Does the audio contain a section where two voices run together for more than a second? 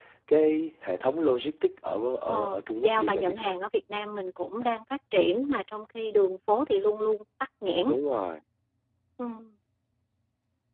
Yes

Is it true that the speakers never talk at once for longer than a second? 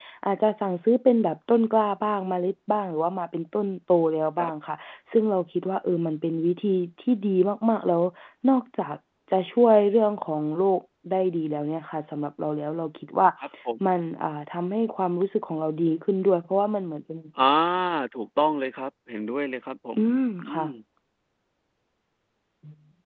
Yes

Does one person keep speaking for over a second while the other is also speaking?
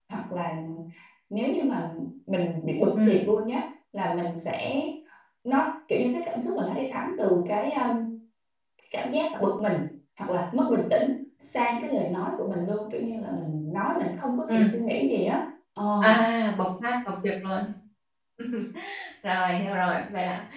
No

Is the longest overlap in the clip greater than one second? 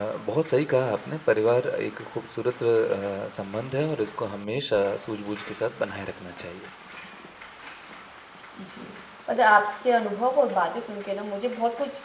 No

